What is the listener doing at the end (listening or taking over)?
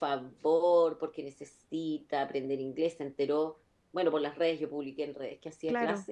listening